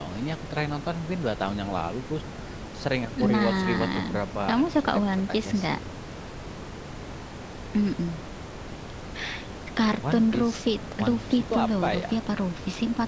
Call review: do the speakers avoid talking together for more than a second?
No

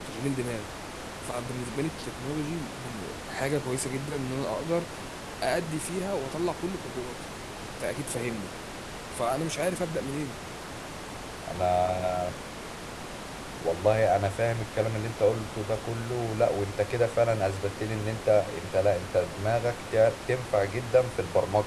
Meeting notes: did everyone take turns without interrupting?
Yes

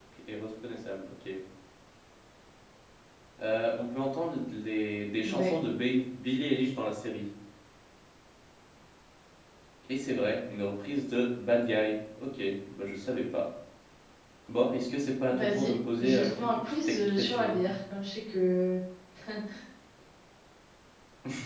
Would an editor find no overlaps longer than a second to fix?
No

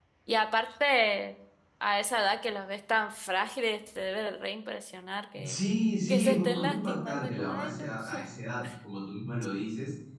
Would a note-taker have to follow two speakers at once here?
Yes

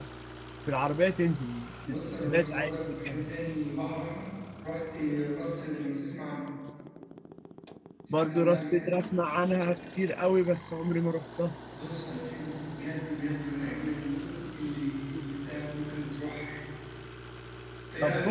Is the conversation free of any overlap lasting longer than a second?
No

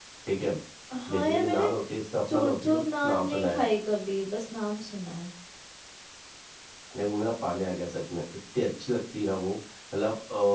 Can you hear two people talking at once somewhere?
Yes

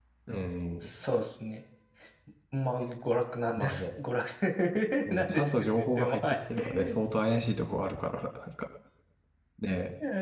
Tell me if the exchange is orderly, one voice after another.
No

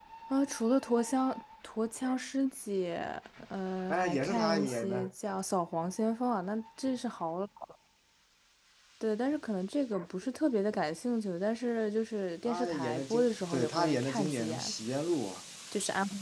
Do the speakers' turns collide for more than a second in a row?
Yes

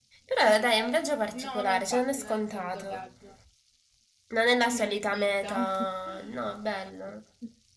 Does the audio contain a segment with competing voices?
Yes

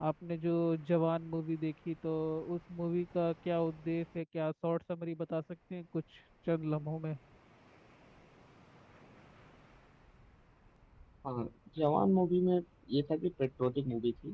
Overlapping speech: No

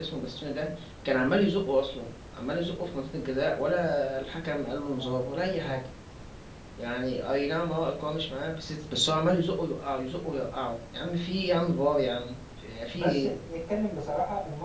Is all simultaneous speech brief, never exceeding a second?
Yes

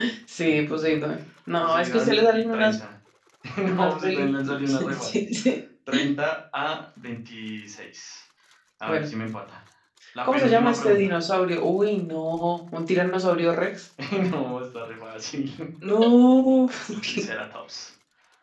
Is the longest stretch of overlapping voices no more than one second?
No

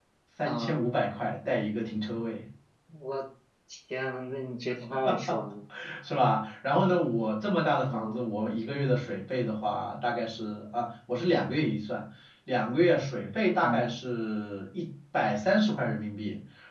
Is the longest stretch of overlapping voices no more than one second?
Yes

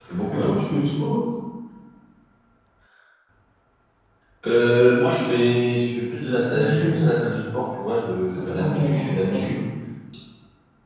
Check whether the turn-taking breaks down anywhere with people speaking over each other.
Yes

